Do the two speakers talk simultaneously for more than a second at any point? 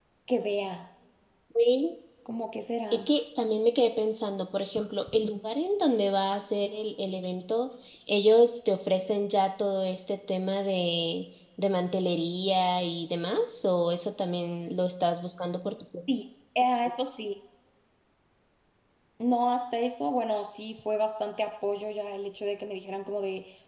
No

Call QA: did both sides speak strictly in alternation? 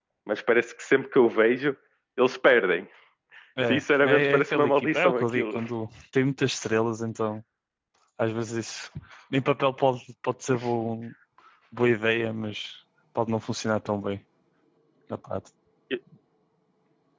No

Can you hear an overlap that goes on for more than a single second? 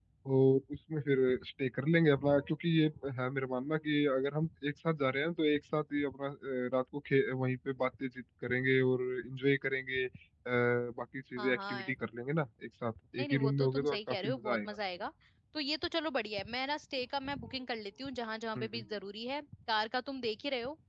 Yes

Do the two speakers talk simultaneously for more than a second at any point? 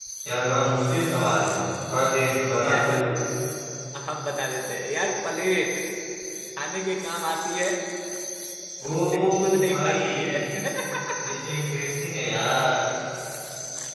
Yes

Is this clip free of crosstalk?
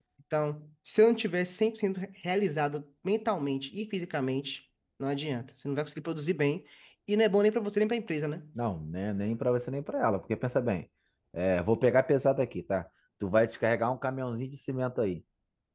Yes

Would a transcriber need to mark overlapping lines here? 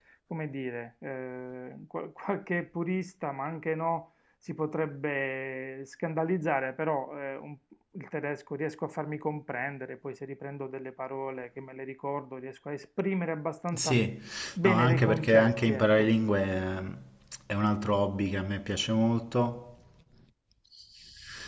Yes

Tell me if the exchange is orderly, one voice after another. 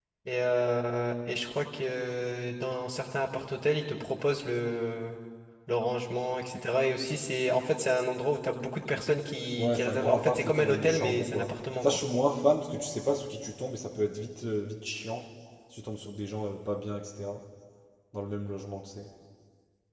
No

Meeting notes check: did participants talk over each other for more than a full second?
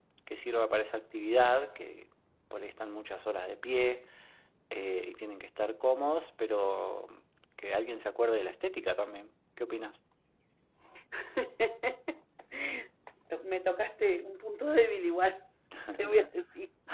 No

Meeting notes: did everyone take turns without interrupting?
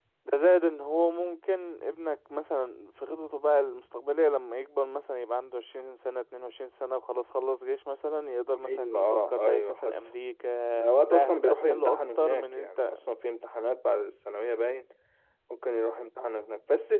No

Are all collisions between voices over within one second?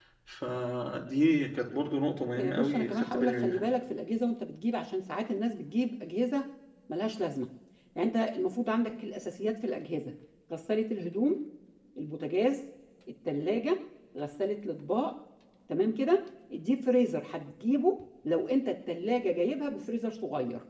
No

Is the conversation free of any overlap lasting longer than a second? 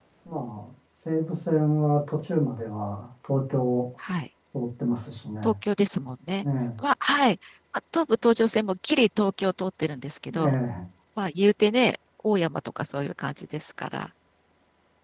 Yes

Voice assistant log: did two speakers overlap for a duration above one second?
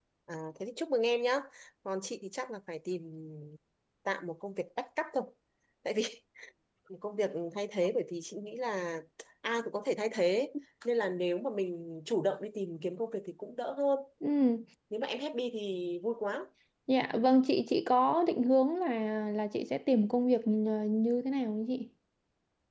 No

